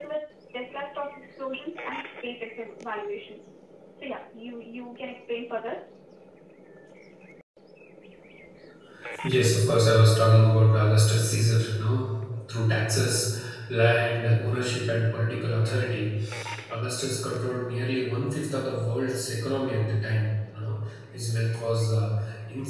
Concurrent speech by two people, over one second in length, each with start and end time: none

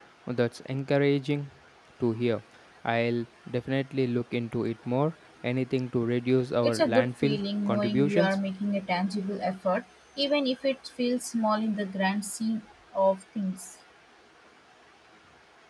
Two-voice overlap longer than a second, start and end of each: 6.6-8.4

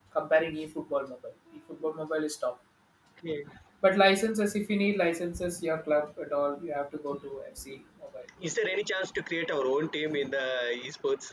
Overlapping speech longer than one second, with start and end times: none

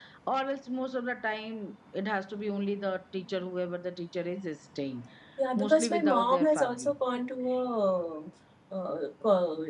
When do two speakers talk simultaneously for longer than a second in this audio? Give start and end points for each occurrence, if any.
5.6-7.0

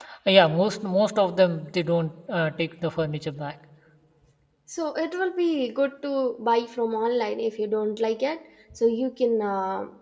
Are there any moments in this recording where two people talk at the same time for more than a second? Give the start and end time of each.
none

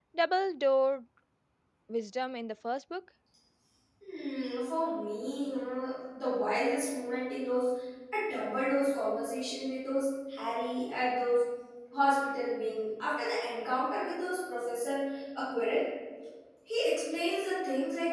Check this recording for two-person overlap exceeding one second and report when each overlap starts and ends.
none

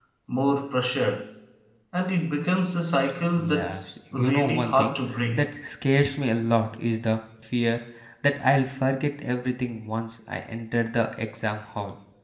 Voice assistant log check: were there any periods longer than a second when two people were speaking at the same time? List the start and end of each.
3.4-4.9

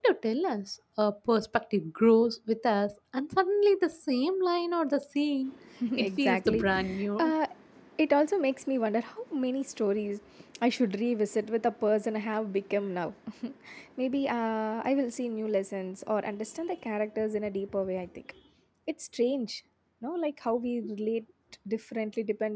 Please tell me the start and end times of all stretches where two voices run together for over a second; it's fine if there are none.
6.0-7.3

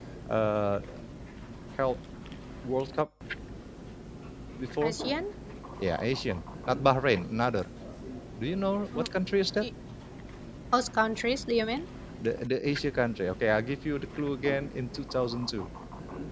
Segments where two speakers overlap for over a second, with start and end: none

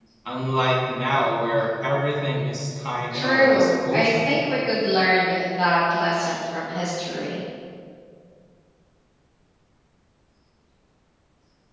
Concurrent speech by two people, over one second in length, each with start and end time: 3.1-4.4

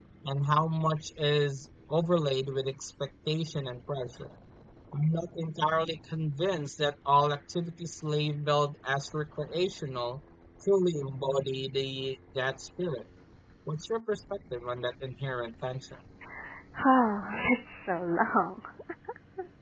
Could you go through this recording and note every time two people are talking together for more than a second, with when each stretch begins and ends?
none

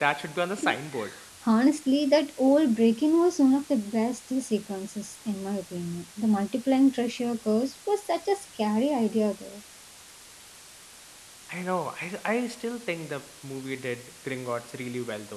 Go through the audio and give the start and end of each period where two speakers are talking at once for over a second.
none

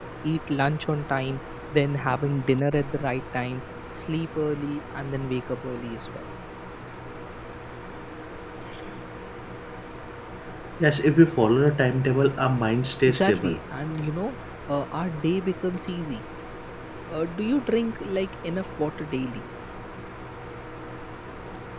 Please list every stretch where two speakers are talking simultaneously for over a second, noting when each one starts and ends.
none

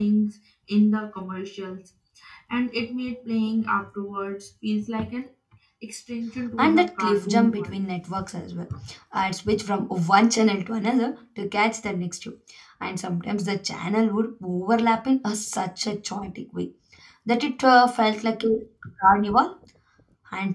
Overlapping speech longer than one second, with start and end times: 6.6-7.8

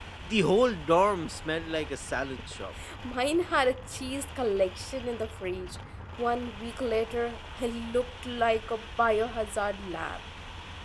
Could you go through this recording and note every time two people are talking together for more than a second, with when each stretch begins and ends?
none

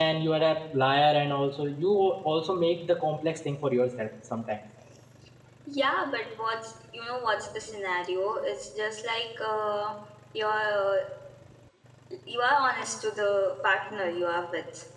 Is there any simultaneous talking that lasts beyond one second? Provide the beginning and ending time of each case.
none

